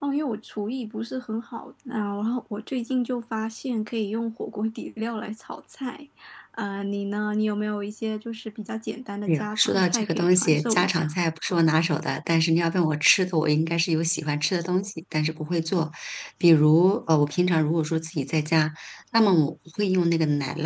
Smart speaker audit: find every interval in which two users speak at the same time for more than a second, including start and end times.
9.3-11.1

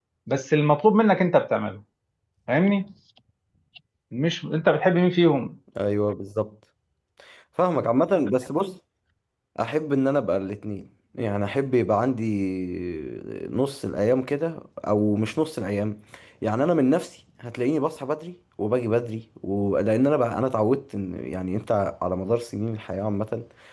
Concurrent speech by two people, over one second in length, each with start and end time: none

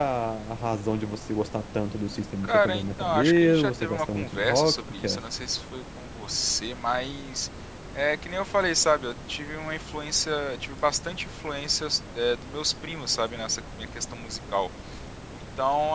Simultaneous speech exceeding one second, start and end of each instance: 2.4-5.2

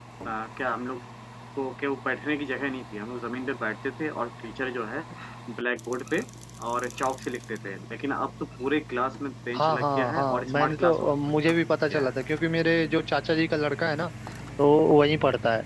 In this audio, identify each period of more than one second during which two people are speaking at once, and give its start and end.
9.6-11.1

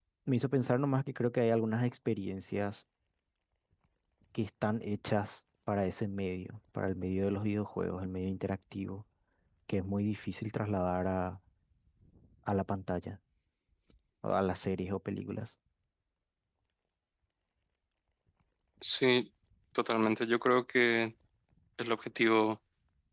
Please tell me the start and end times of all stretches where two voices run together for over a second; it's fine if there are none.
none

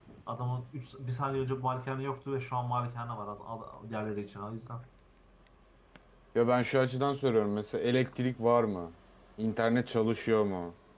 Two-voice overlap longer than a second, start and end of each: none

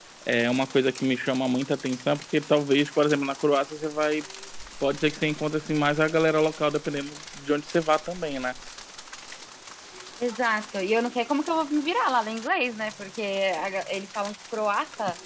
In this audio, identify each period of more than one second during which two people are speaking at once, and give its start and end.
none

